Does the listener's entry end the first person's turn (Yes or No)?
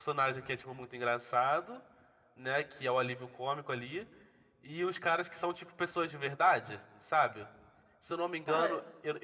No